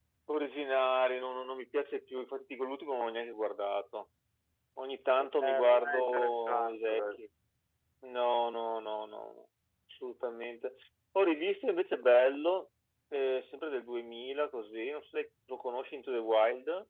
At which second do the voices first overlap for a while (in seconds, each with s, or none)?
5.2 s